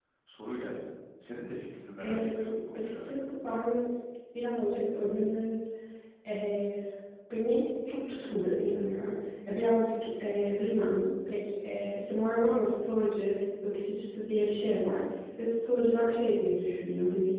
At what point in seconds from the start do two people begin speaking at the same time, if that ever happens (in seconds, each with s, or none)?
2.0 s